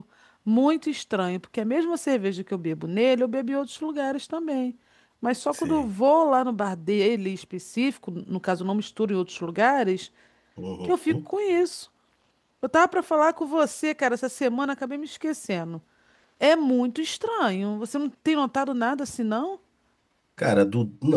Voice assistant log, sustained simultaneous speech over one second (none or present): none